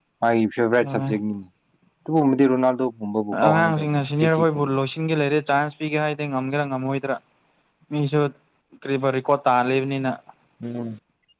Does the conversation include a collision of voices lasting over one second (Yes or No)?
Yes